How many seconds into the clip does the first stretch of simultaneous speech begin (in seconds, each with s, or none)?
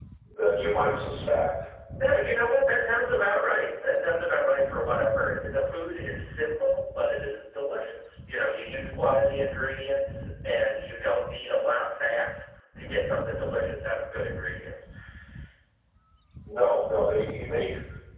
none